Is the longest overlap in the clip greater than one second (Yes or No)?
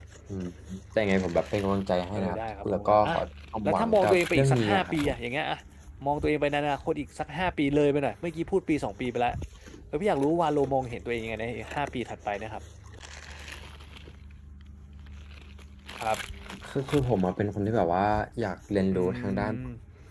Yes